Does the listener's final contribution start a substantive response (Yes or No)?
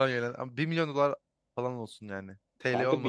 Yes